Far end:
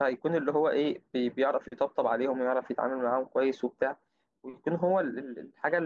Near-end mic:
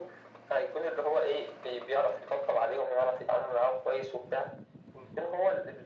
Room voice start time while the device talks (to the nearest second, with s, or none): none